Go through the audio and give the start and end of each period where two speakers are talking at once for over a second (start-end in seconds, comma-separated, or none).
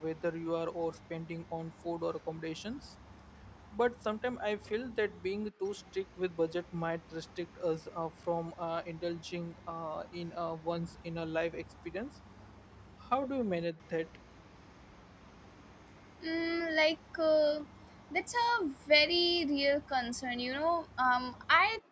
none